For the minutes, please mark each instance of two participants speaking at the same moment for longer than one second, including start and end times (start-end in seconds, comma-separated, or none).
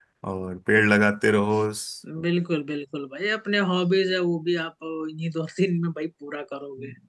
none